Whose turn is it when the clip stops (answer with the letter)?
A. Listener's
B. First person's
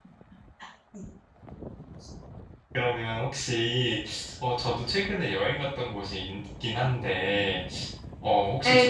A